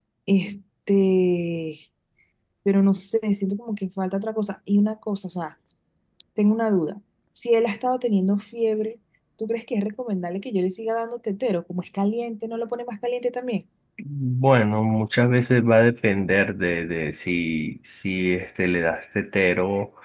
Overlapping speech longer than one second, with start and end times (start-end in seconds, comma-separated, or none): none